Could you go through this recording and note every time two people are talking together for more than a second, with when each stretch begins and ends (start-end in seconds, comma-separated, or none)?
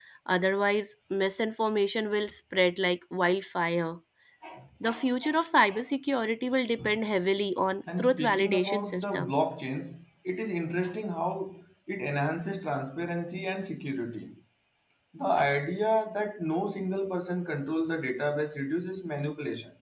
8.0-9.5